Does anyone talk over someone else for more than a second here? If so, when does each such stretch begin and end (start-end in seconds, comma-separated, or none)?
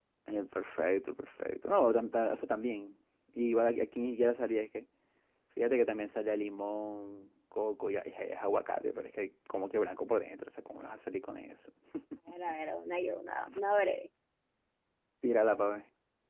none